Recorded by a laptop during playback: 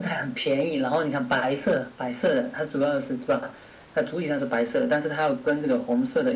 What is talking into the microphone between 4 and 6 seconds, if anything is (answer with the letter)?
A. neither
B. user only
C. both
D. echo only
D